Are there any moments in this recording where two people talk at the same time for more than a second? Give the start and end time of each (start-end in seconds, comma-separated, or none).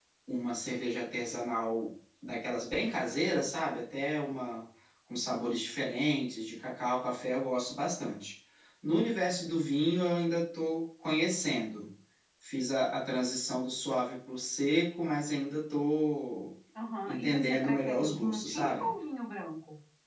17.1-18.9